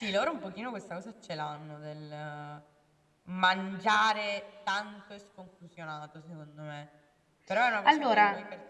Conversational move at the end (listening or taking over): listening